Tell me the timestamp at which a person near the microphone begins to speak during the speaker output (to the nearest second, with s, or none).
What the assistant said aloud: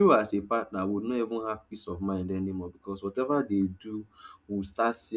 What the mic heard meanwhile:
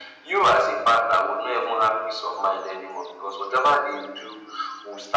none